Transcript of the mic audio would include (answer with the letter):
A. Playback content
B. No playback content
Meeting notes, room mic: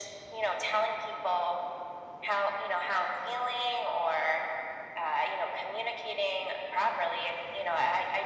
A